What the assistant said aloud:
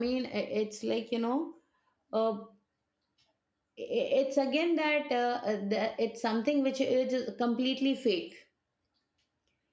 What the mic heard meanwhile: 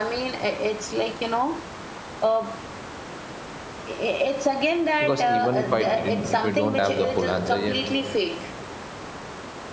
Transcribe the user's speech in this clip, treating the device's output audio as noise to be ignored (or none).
Because even if I didn't, if I don't have the full answer yet,